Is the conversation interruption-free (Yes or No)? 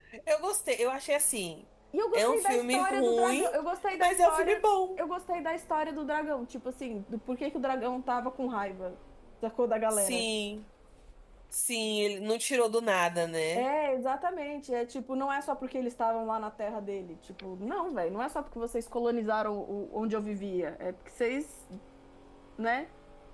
No